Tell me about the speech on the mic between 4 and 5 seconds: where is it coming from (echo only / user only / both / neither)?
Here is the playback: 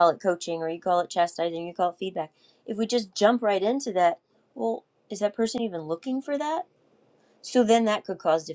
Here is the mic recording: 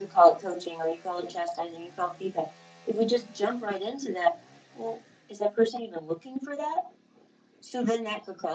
echo only